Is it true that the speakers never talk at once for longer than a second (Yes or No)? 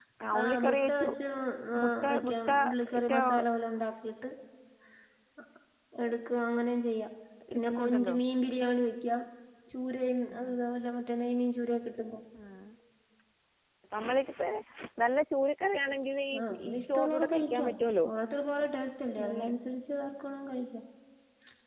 No